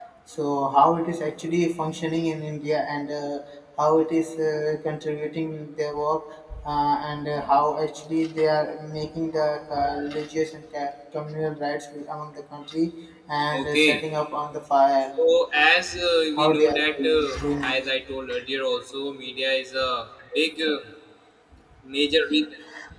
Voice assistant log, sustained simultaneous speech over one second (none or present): present